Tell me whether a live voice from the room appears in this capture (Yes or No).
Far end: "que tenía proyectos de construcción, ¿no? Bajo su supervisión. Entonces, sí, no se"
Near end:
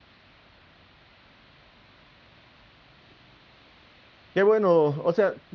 Yes